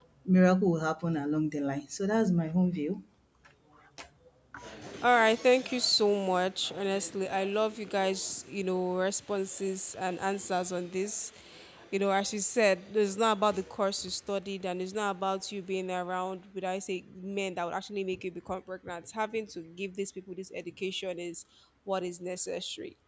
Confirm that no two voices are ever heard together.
Yes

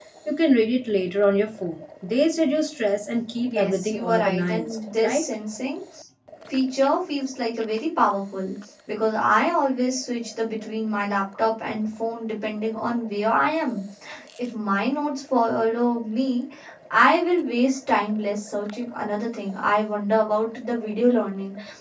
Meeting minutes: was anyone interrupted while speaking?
Yes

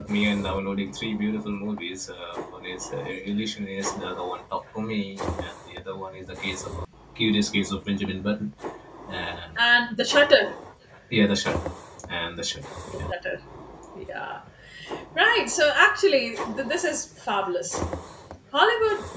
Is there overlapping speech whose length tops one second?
No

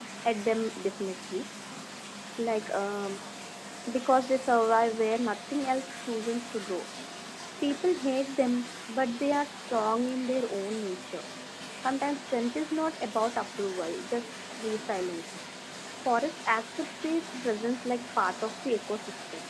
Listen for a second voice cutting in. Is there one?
No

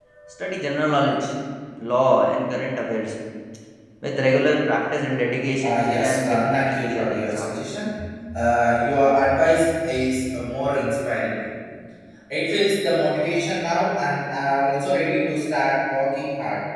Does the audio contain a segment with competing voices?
Yes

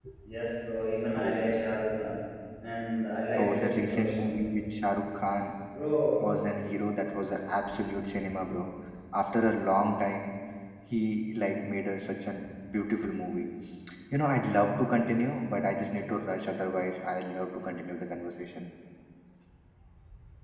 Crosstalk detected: Yes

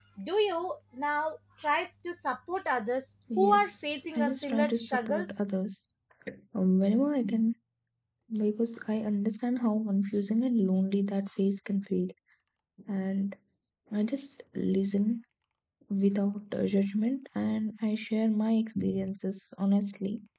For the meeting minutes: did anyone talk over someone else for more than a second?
Yes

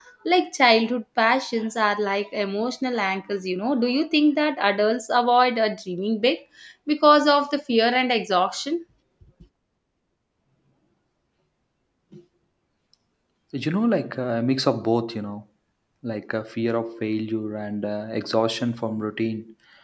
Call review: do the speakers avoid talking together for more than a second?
Yes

